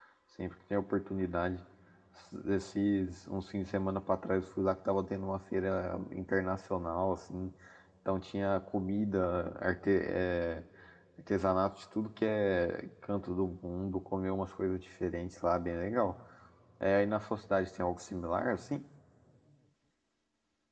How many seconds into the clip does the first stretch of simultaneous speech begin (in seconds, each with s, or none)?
none